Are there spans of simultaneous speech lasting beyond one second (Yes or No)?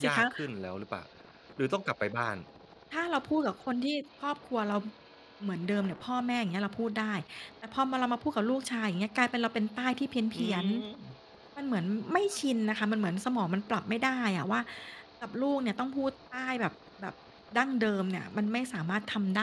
No